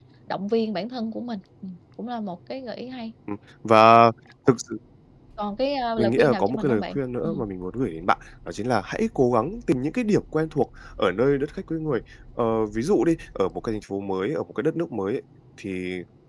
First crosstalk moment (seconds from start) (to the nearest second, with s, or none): 6 s